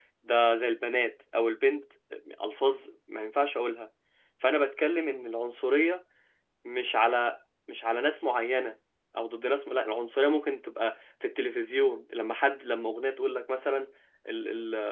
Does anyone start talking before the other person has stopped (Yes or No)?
No